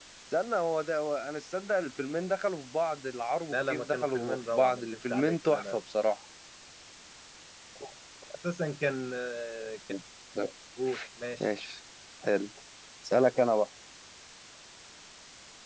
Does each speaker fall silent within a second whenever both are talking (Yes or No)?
No